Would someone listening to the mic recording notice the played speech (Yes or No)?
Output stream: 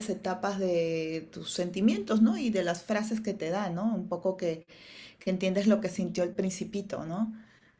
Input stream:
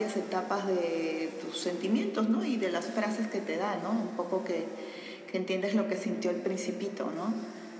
Yes